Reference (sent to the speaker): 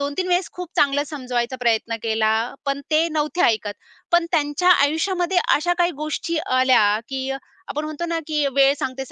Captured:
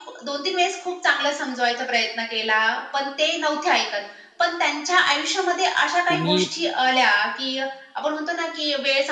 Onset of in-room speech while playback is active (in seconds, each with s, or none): 6.1 s